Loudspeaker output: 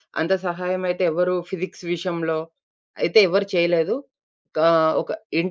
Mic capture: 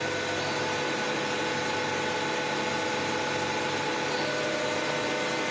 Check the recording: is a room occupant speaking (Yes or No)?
No